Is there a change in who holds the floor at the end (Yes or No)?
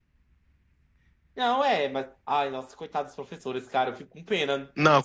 Yes